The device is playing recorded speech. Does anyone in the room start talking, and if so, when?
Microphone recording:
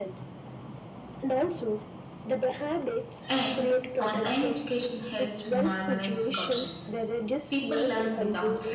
3 s

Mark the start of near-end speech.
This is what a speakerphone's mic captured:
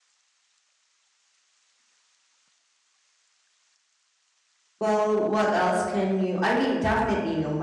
5 s

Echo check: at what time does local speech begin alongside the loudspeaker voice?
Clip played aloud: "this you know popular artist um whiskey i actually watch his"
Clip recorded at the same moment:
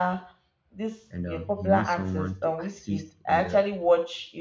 1 s

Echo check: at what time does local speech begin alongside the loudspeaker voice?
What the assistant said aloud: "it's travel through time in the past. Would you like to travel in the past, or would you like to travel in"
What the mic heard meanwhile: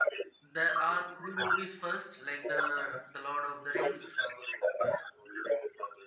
0 s

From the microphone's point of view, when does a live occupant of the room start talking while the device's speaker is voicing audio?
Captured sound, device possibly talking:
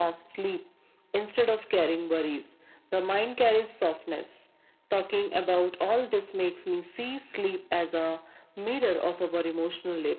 none

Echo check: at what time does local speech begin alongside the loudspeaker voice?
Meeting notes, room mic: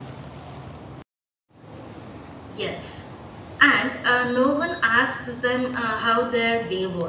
2 s

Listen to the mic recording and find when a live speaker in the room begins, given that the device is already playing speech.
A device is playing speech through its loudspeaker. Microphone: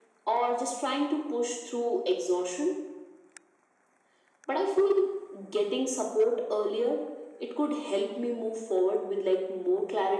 none

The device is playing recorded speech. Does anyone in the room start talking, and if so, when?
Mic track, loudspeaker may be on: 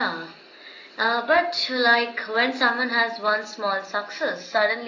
none

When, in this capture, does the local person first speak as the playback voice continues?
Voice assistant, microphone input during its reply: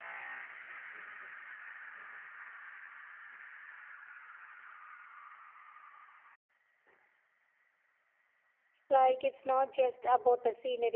9 s

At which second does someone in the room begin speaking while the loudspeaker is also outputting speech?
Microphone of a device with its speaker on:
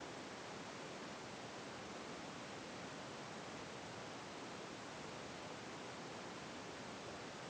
none

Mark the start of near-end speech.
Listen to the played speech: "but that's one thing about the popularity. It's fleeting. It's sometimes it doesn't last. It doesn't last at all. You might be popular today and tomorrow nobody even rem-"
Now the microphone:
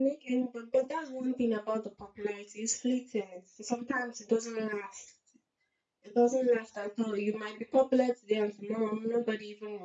none

